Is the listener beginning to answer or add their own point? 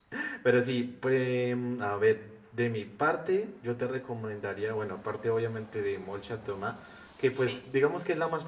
No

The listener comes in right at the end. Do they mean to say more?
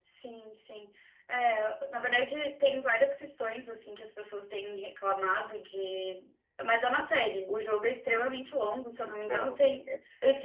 No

